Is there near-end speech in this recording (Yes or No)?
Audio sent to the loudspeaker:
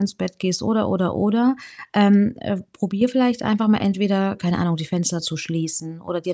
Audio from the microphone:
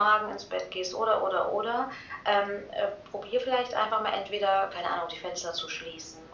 No